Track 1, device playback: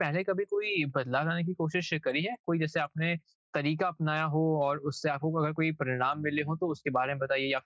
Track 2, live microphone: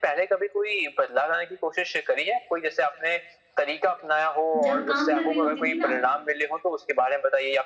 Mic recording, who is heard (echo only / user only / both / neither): both